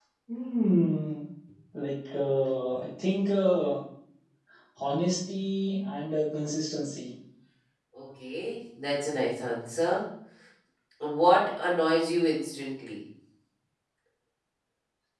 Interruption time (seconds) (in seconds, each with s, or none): none